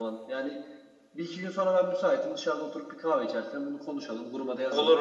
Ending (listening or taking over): listening